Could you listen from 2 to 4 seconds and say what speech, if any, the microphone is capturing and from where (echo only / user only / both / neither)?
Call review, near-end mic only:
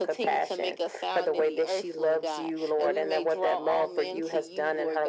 echo only